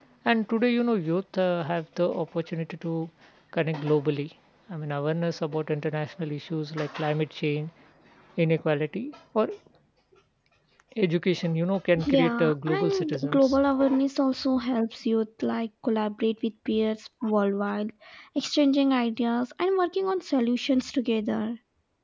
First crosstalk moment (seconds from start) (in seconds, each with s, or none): 12.0 s